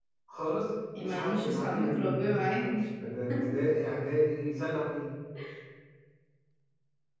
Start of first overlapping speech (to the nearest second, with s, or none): 1 s